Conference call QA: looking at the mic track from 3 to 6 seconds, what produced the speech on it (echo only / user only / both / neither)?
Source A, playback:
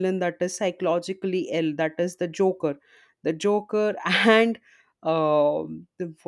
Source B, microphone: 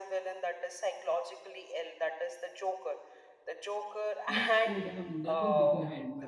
both